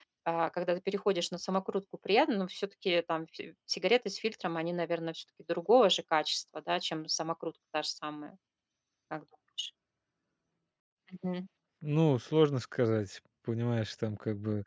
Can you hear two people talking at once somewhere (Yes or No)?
No